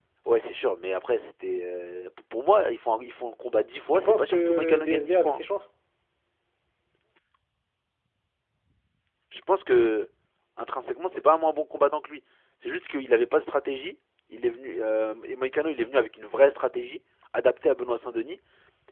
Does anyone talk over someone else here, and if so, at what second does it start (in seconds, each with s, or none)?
3.9 s